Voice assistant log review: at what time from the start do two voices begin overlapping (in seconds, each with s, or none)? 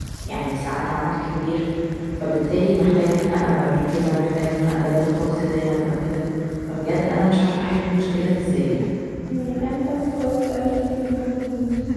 none